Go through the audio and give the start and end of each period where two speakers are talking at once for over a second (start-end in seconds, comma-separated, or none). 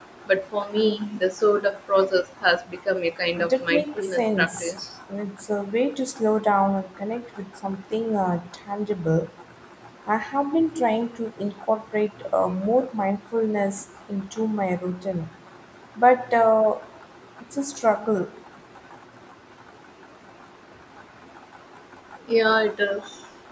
3.4-4.7